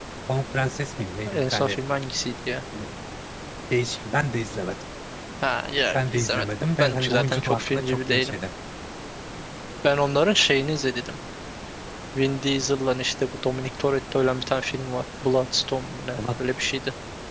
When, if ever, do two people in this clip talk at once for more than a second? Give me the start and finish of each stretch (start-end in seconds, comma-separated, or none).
5.9-8.3